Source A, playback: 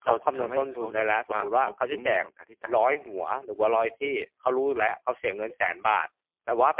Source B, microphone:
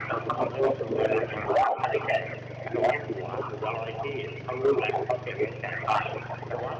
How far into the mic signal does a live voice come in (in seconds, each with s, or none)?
none